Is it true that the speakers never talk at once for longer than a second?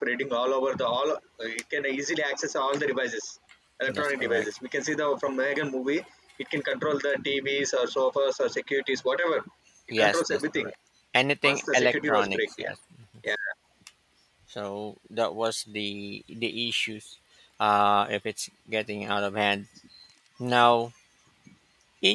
No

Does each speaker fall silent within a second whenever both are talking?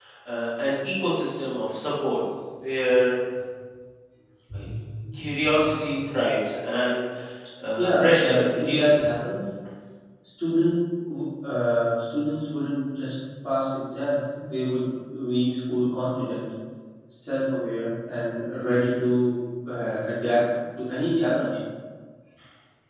No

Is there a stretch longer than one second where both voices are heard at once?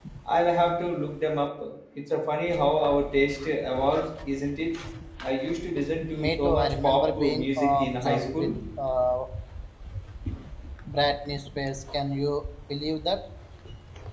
Yes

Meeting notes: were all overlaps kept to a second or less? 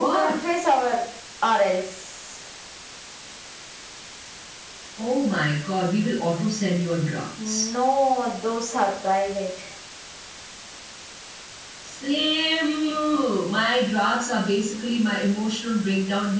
Yes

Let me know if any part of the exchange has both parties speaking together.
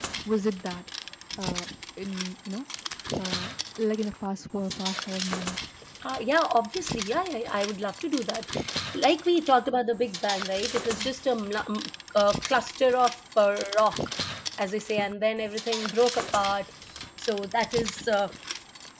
No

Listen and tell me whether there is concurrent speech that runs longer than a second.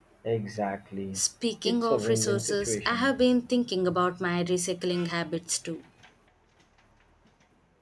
Yes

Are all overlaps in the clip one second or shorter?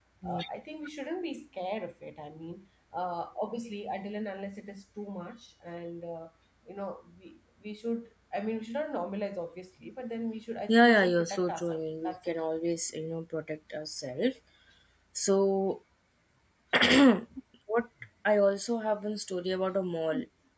No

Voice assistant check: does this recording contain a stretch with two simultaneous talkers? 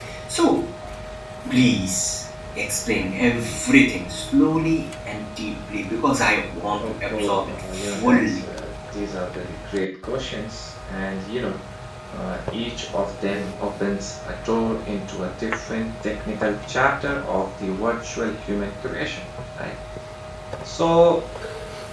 Yes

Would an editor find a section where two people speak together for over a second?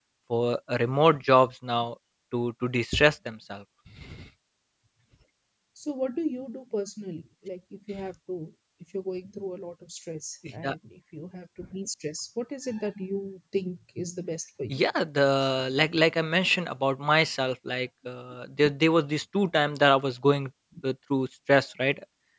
No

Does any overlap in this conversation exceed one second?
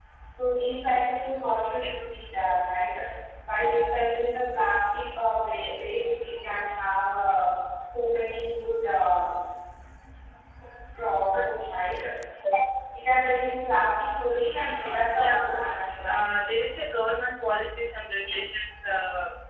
No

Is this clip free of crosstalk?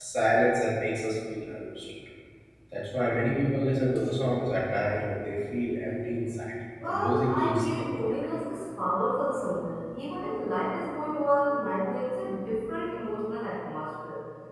No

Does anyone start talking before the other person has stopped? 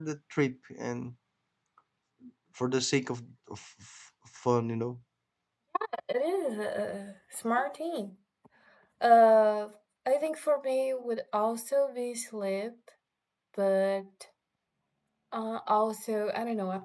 No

